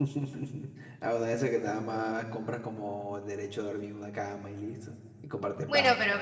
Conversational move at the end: taking over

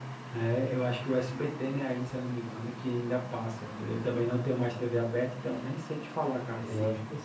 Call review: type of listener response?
taking over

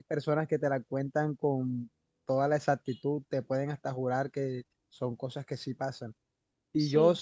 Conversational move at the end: listening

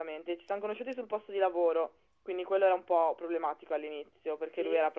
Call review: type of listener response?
listening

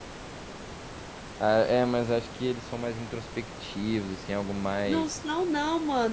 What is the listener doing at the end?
taking over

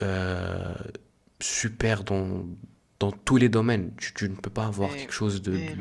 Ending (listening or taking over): taking over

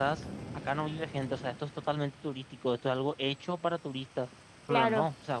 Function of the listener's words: listening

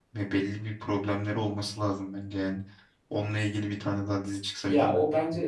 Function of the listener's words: taking over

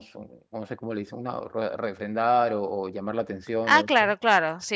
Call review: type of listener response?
taking over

